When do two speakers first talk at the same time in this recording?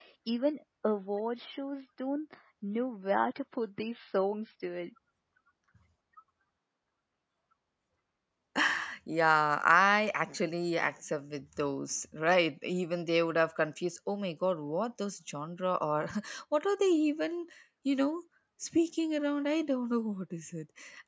none

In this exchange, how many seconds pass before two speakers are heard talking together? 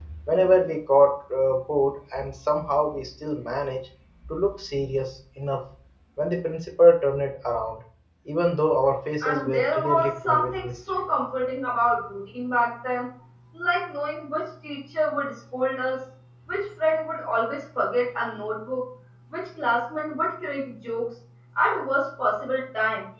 9.2 s

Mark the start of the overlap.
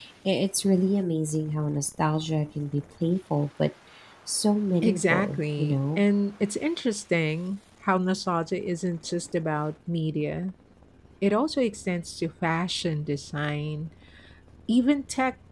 4.8 s

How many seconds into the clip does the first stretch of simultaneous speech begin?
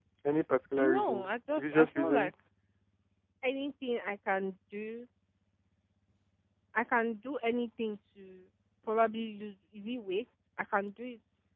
0.8 s

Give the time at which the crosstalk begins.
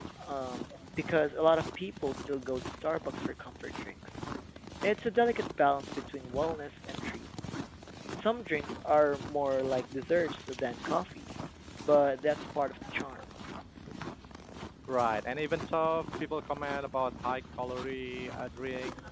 none

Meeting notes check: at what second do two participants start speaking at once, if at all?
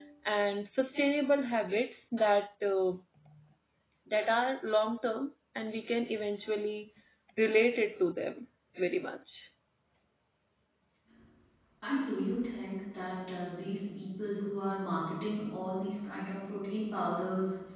none

